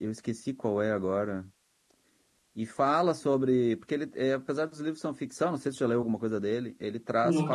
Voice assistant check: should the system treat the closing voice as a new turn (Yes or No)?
No